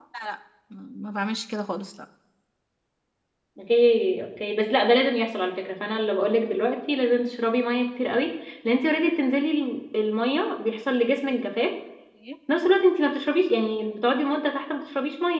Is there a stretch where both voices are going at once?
No

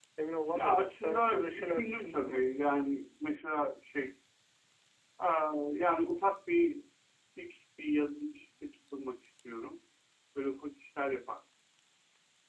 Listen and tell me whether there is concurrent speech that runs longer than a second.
Yes, from 0.6 s

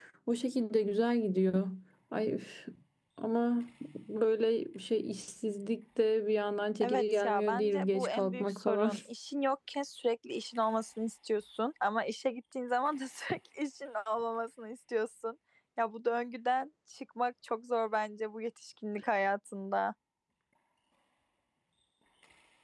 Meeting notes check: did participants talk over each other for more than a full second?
Yes, from 6.8 s

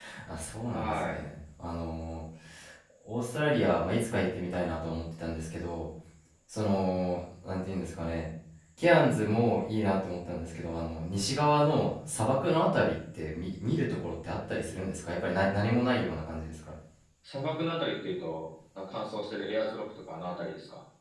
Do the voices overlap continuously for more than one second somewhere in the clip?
No

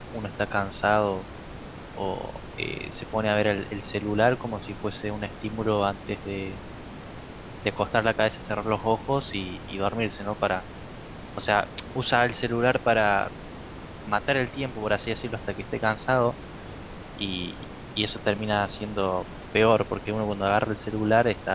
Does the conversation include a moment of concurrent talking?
No

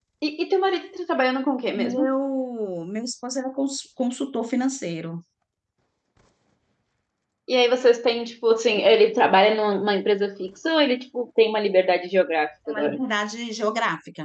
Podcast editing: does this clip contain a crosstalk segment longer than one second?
No

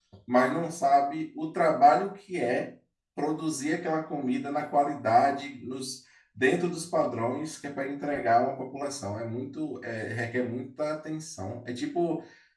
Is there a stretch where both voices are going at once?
No

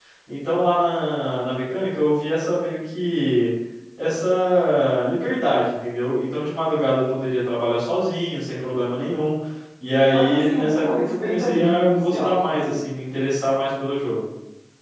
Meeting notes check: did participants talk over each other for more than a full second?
Yes, from 10.1 s

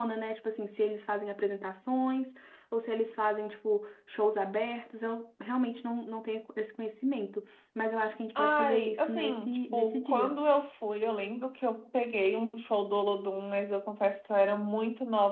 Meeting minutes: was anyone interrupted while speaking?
Yes, from 8.3 s

